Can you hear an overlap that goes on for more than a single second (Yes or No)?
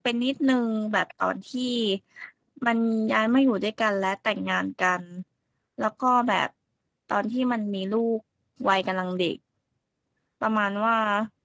No